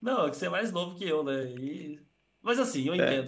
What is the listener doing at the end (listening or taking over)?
listening